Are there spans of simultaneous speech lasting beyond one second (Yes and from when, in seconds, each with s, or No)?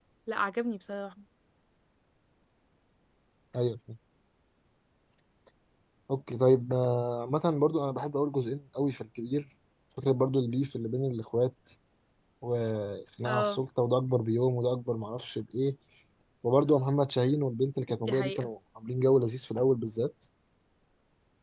No